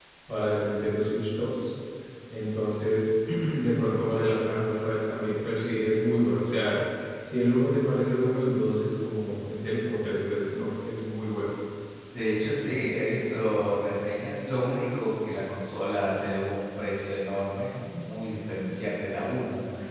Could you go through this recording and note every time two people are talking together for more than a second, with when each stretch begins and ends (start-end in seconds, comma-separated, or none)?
none